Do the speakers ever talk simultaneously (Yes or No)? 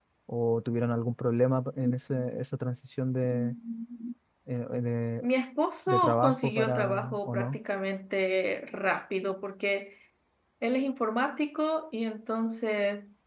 Yes